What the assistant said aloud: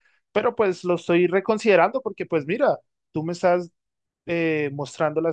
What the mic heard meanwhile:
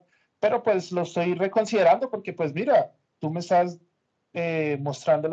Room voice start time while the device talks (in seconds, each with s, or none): none